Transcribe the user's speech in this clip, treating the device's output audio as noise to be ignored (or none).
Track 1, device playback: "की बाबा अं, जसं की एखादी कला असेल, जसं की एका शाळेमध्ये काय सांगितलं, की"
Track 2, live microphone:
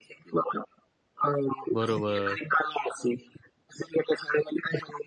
बरोबर.